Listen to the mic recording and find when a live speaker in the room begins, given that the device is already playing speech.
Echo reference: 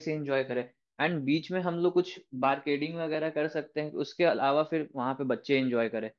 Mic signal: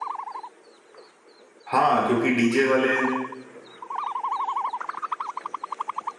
1.7 s

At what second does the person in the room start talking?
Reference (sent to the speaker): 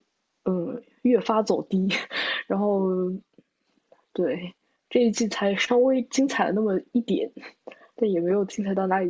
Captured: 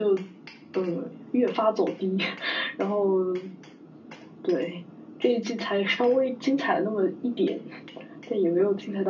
none

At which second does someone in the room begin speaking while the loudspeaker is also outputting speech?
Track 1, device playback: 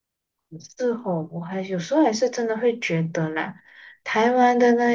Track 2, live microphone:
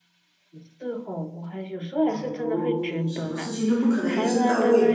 2.1 s

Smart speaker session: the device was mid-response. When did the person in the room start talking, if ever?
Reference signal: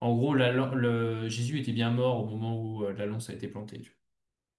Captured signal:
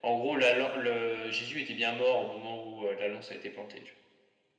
none

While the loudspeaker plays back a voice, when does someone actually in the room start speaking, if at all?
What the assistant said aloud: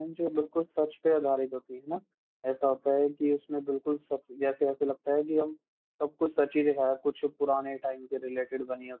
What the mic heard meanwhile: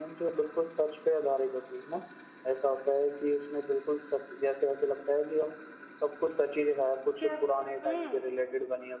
7.2 s

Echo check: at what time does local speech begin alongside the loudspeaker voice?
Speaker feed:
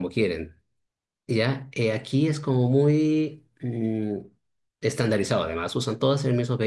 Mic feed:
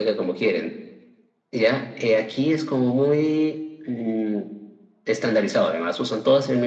none

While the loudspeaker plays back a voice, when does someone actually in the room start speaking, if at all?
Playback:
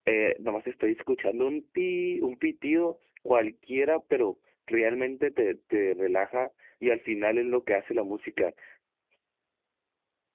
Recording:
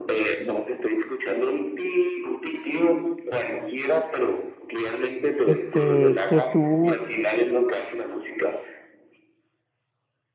5.4 s

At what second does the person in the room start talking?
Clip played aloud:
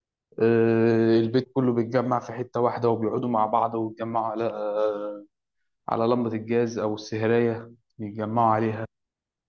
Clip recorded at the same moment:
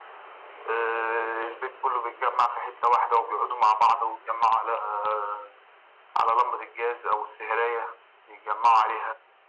none

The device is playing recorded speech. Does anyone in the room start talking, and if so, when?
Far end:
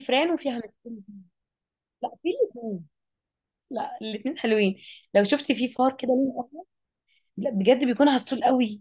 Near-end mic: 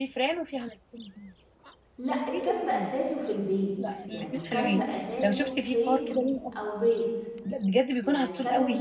2.0 s

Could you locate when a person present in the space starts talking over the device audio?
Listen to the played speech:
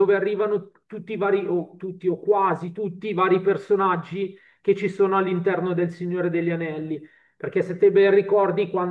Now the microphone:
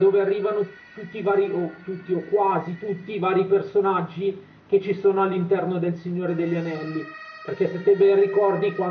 none

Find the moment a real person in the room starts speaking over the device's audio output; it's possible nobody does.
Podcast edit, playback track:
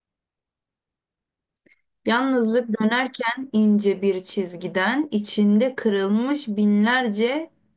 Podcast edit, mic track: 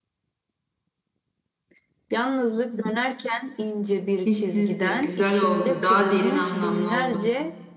4.2 s

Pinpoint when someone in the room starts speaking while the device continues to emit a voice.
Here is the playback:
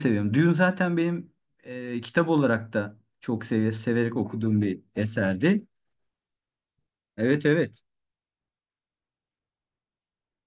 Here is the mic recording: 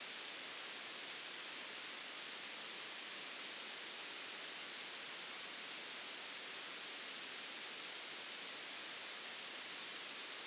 none

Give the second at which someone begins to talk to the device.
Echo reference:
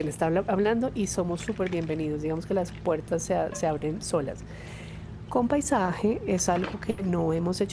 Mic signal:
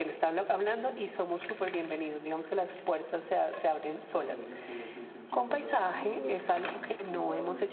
4.1 s

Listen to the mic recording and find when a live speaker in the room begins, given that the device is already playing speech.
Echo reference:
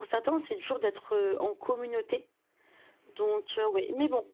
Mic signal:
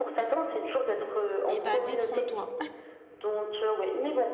1.5 s

